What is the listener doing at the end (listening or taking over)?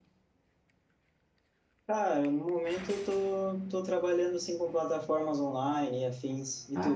taking over